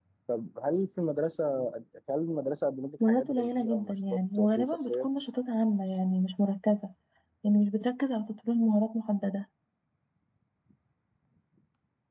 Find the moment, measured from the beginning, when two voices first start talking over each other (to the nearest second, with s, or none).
3 s